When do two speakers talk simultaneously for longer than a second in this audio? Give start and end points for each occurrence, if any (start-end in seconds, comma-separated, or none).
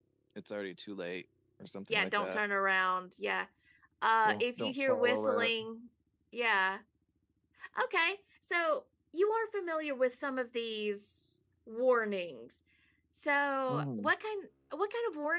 4.2-5.5